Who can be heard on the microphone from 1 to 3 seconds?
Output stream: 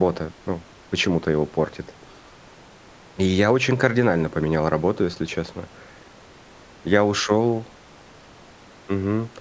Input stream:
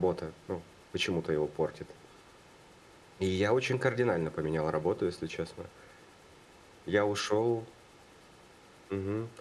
echo only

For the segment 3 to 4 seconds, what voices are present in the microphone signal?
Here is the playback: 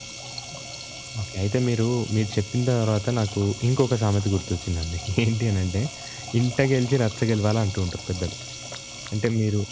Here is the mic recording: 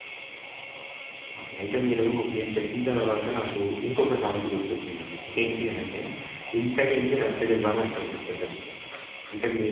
echo only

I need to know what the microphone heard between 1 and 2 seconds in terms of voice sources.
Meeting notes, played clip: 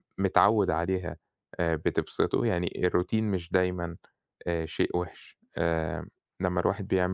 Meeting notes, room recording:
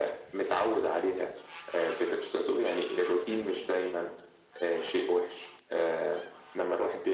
echo only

